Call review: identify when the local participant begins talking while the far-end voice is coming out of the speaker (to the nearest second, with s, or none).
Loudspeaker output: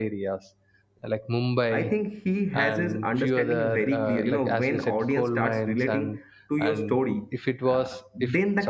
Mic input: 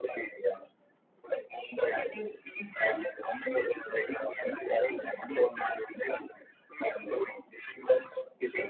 none